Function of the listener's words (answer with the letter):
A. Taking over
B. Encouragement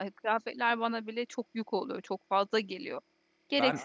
A